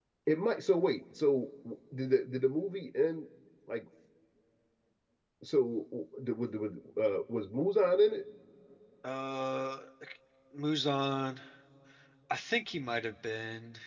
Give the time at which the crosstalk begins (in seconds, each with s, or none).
none